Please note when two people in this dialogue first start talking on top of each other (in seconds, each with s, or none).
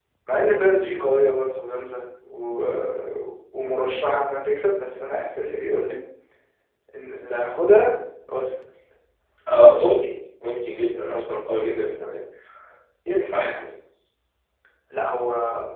none